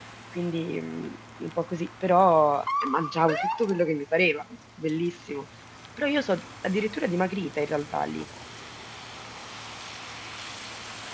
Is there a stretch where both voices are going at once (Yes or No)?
No